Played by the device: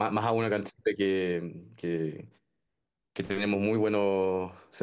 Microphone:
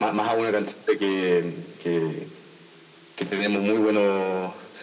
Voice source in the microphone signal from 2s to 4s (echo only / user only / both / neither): echo only